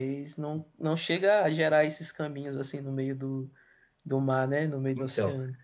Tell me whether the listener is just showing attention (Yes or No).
No